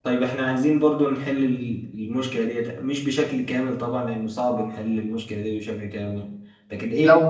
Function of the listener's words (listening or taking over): listening